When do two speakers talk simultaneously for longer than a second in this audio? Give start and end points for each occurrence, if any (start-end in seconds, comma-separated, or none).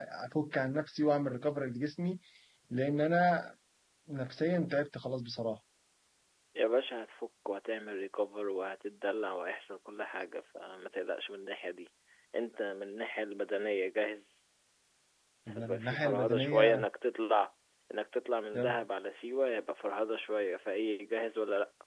15.5-16.9